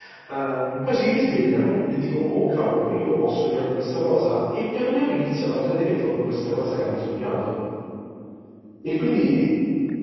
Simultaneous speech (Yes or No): No